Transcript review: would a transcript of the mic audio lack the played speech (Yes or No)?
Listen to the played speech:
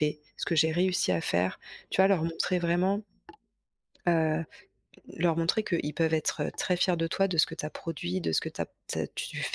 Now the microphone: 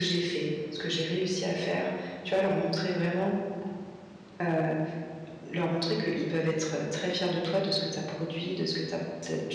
No